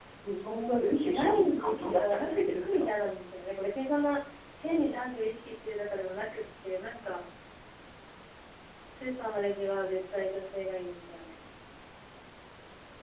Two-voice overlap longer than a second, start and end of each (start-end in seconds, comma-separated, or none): 1.0-2.9